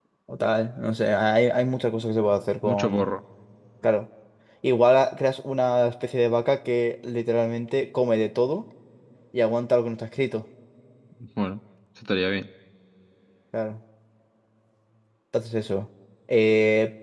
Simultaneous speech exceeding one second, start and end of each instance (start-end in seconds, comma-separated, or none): none